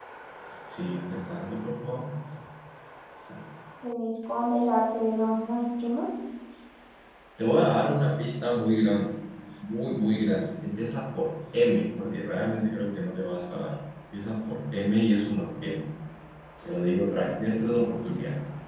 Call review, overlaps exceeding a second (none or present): none